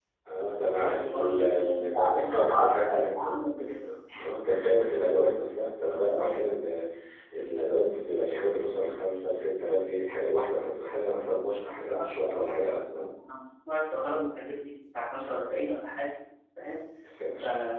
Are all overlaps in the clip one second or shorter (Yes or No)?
No